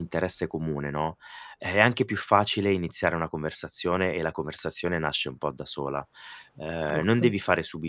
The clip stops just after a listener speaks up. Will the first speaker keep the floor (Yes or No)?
Yes